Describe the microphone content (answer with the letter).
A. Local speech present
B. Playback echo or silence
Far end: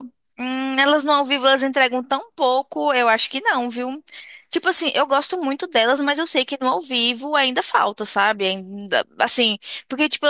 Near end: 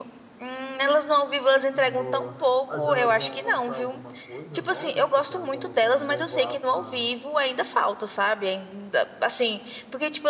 A